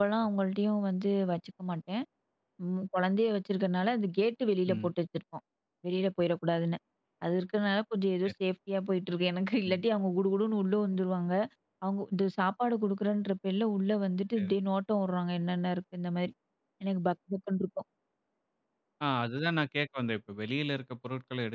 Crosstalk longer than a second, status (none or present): none